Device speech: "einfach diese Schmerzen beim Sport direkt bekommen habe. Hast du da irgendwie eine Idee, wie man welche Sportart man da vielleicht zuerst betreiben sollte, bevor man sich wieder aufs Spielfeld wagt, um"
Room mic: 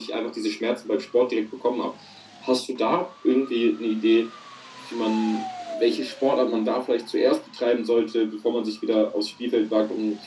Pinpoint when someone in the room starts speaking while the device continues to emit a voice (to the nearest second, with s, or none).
none